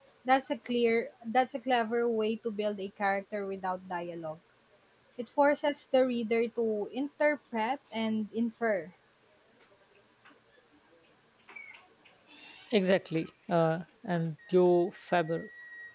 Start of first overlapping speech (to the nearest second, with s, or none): none